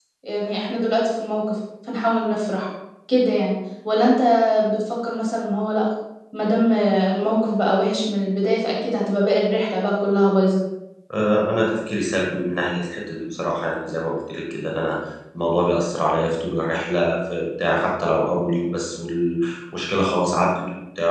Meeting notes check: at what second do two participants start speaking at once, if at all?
none

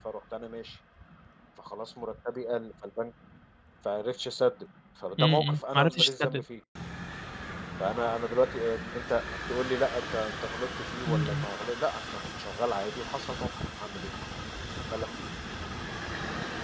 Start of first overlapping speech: 5.2 s

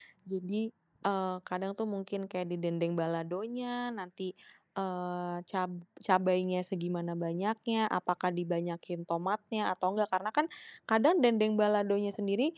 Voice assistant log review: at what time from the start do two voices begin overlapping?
none

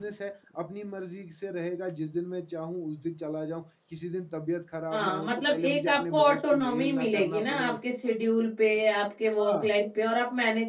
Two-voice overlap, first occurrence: 4.9 s

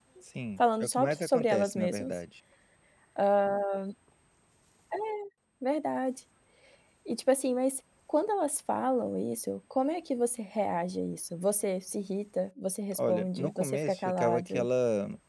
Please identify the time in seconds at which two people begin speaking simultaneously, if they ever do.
0.6 s

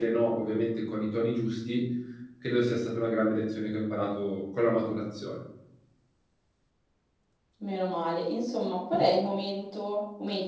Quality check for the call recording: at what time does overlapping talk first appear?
none

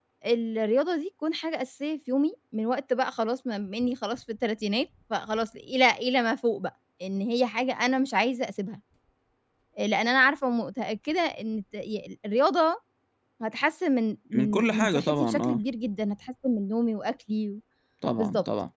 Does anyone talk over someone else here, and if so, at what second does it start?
14.3 s

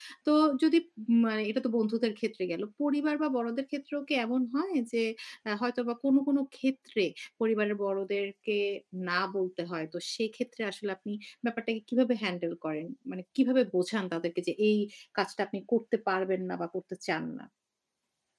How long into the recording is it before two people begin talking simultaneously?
none

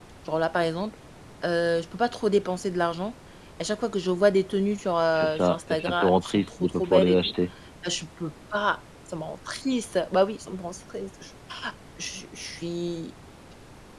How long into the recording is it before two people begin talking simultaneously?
5.1 s

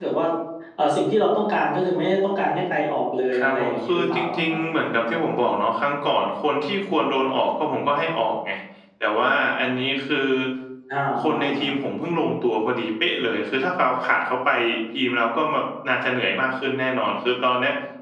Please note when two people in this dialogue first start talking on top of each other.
3.4 s

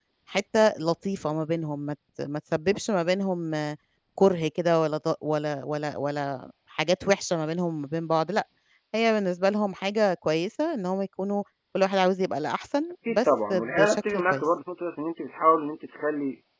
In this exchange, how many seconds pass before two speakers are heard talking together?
13.1 s

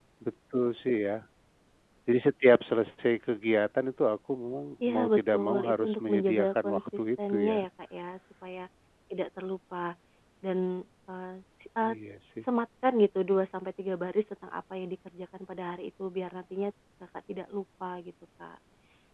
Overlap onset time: 4.8 s

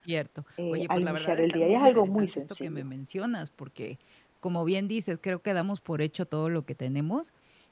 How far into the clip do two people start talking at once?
0.7 s

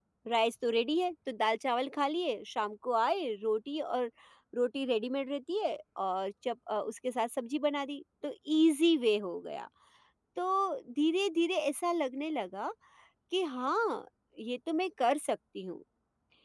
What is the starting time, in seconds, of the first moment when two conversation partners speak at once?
none

